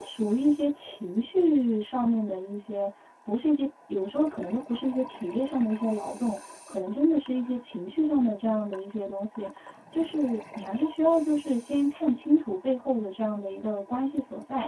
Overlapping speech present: No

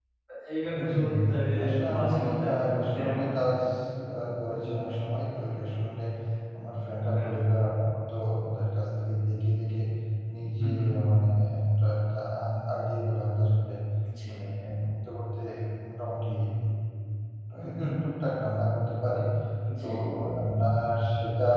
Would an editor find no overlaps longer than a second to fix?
No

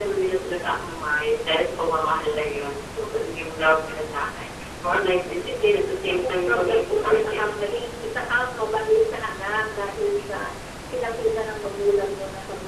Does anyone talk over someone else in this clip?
Yes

